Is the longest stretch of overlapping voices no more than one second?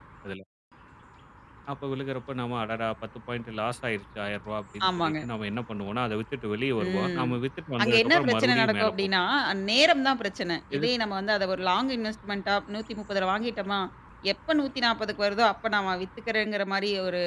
No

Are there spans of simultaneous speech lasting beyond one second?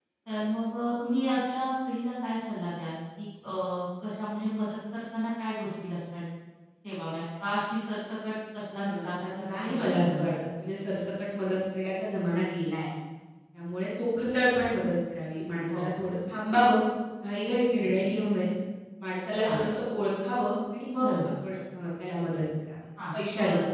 Yes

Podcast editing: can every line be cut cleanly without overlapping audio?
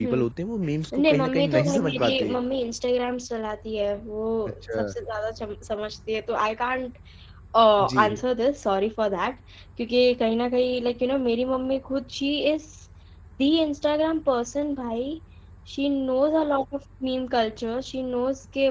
No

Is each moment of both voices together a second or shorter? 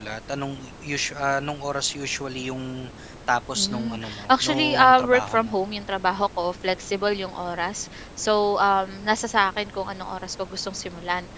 No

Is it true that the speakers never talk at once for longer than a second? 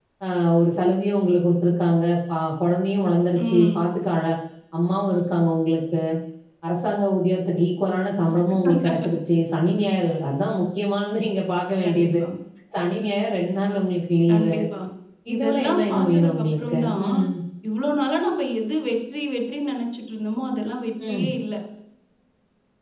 No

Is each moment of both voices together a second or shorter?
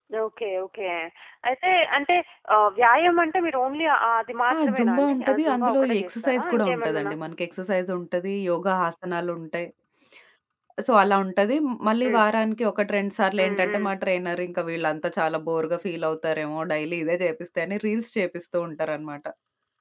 No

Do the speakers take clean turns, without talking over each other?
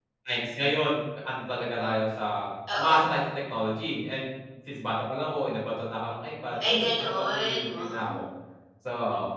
No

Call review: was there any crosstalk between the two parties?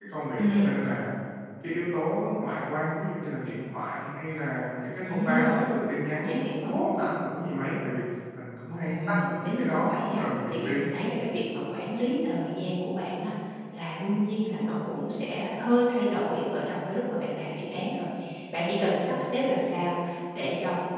Yes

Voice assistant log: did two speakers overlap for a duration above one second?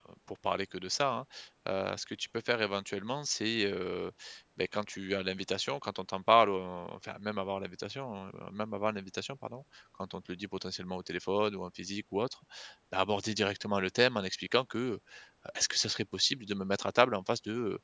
No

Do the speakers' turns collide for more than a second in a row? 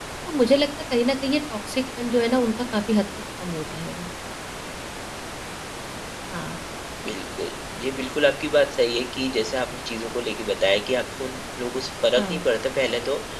No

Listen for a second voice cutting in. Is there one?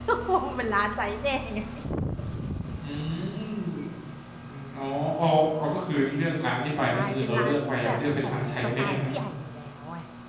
Yes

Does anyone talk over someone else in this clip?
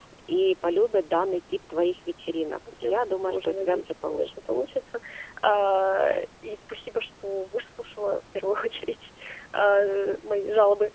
Yes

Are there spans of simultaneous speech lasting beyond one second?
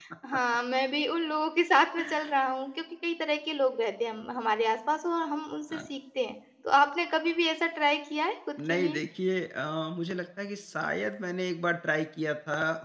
No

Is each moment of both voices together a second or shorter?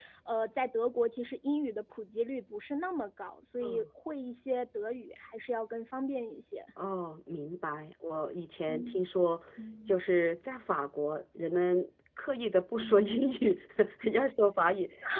Yes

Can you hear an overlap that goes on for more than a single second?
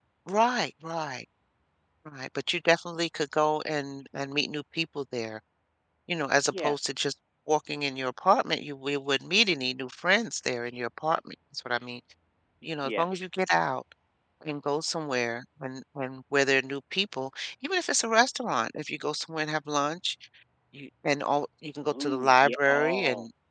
Yes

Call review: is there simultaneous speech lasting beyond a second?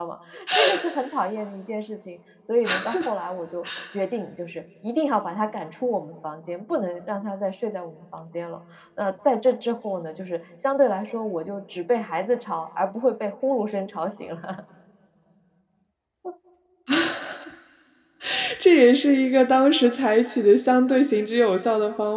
No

